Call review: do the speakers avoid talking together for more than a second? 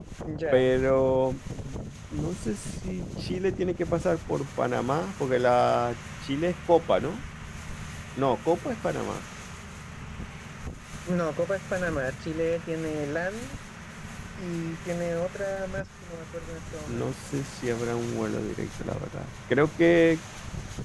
Yes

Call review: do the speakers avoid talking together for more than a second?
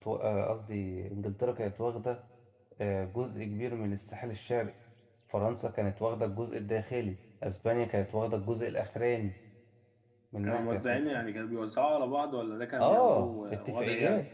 No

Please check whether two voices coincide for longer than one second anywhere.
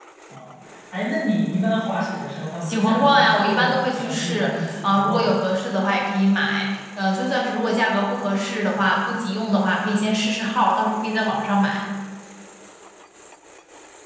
Yes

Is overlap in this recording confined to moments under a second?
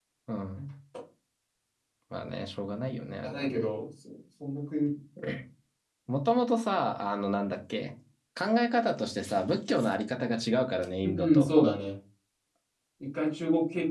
Yes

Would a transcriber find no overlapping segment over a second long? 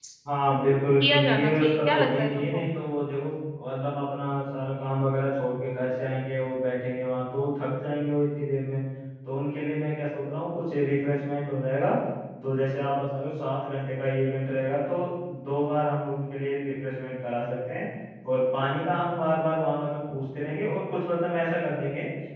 No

